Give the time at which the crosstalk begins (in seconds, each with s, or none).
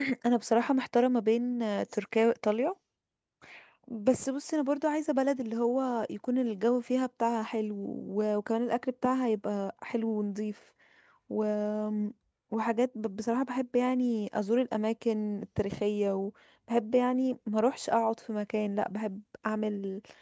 none